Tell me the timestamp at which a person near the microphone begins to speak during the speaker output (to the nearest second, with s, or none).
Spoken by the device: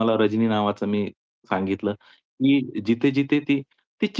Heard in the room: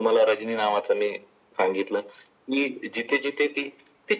none